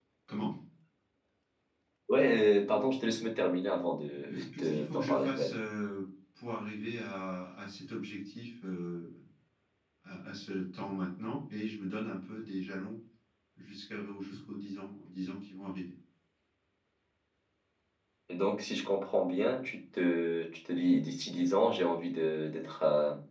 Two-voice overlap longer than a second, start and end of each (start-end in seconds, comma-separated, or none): 4.1-5.5